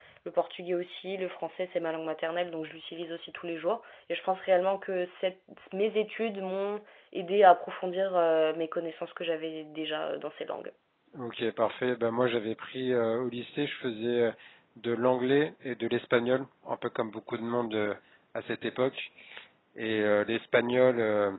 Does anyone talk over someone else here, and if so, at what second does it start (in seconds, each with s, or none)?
none